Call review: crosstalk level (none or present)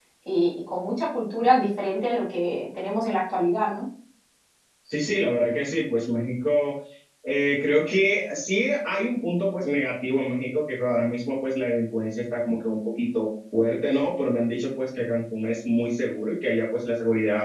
none